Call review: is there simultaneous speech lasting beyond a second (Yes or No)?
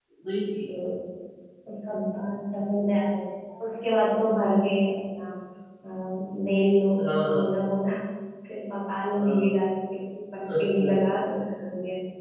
No